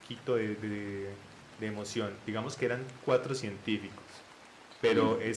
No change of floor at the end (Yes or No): Yes